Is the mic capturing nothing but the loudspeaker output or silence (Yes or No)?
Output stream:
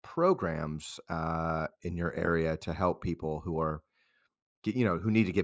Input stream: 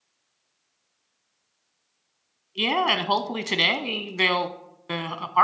No